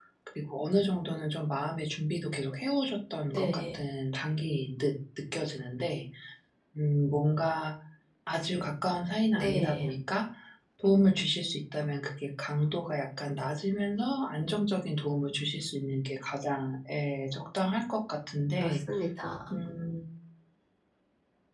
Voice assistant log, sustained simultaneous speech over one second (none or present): none